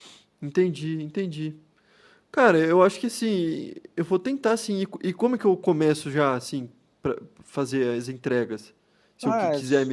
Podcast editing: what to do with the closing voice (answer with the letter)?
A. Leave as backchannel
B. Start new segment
B